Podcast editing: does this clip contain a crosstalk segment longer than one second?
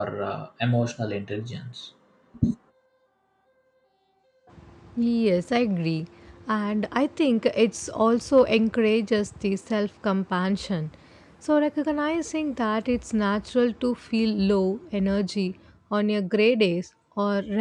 No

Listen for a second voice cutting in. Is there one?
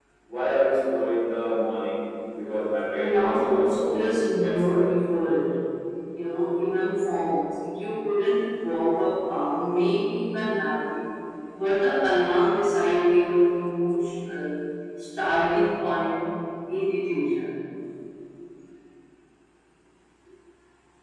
Yes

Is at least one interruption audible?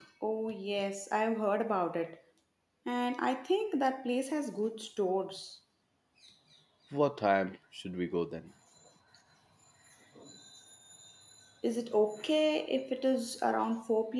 No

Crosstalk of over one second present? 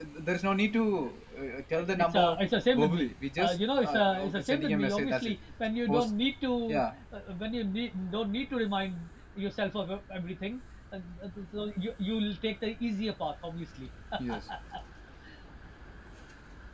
Yes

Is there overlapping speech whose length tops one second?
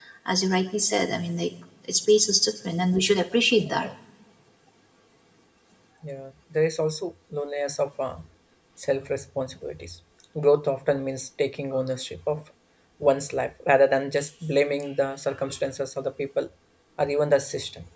No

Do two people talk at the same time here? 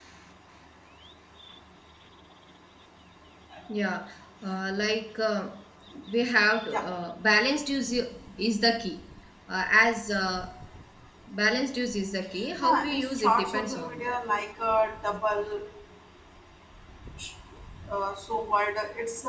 Yes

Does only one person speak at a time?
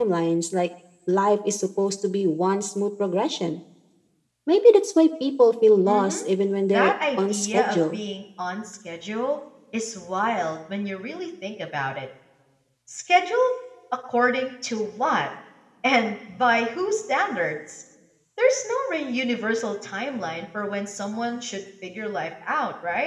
No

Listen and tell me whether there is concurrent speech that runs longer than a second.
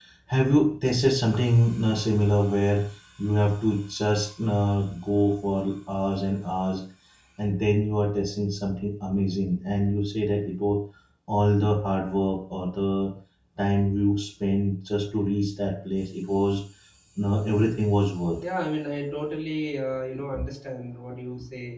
No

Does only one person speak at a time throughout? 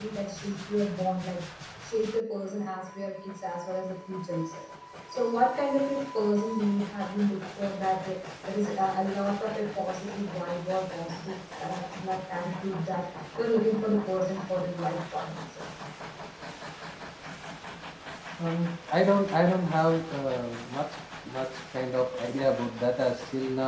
Yes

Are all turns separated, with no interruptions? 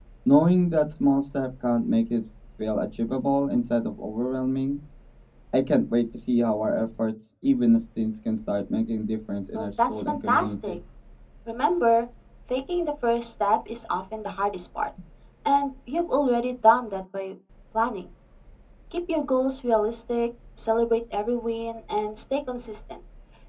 No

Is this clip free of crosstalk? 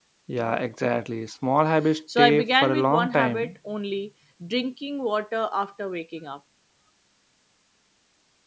No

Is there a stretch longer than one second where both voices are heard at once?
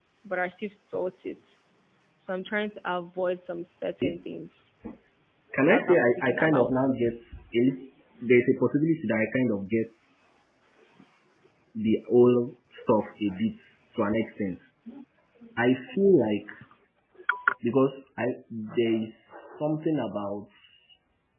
Yes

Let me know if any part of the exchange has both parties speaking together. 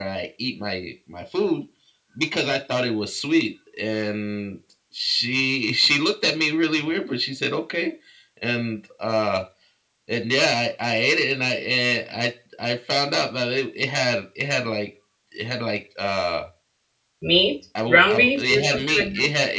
Yes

